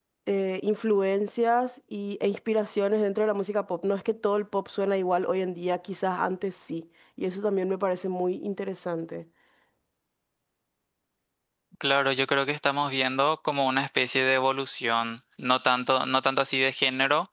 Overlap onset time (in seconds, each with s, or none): none